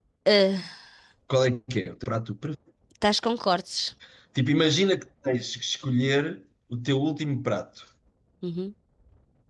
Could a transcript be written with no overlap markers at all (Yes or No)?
Yes